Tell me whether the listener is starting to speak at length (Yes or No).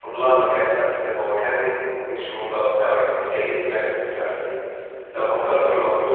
No